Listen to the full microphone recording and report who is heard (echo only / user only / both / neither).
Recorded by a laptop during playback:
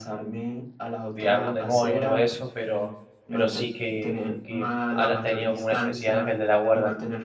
both